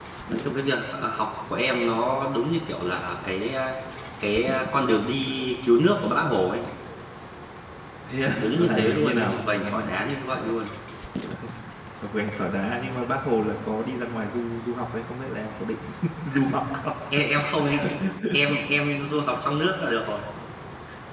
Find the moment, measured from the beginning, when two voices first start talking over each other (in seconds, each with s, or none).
8.3 s